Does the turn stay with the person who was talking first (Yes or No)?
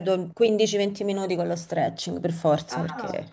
No